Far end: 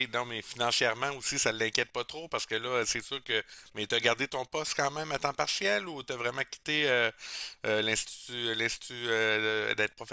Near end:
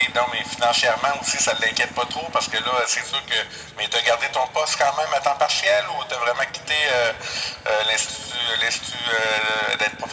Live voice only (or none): none